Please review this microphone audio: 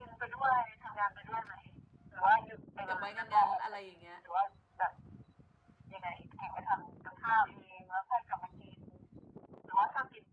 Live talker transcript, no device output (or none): เก็บไว้งานๆอะไรอย่างเงี้ย